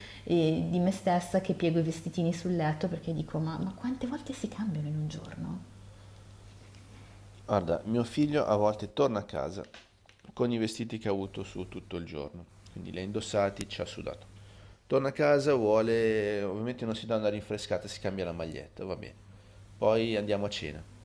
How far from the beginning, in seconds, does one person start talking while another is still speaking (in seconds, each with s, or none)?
none